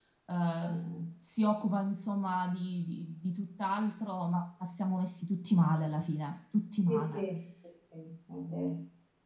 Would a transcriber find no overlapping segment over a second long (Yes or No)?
Yes